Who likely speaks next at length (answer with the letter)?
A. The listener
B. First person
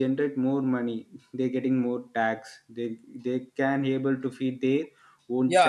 A